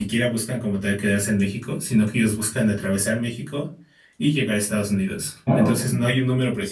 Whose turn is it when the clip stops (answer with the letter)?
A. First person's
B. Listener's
A